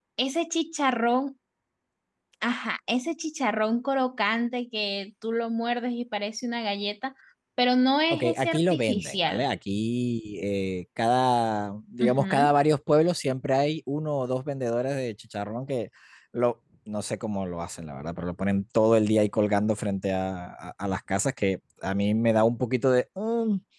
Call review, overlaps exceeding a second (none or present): present